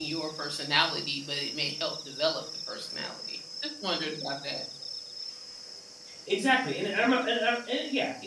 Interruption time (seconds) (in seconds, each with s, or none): none